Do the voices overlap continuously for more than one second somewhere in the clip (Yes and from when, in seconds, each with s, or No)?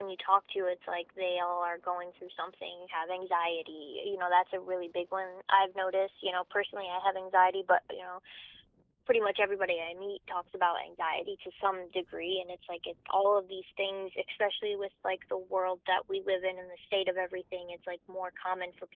No